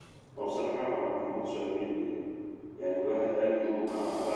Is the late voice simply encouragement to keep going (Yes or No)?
Yes